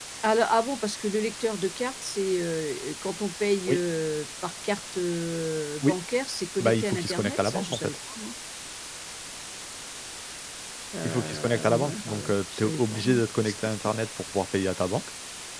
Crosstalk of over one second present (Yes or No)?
Yes